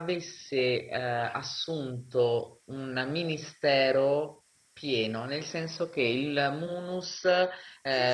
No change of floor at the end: No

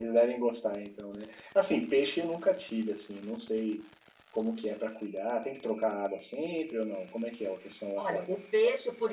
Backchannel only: No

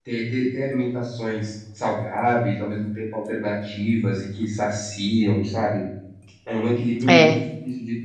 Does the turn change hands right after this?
No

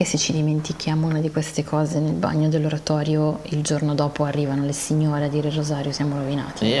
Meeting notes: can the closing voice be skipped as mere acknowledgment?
No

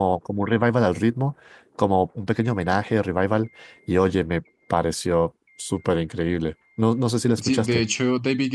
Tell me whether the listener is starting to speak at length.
Yes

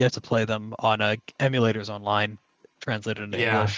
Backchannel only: No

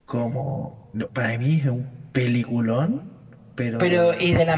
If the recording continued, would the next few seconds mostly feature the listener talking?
Yes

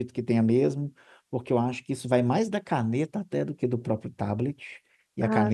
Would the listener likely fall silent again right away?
Yes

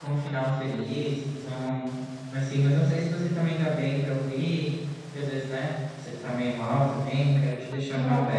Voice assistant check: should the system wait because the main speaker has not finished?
No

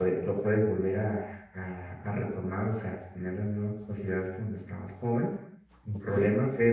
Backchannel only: Yes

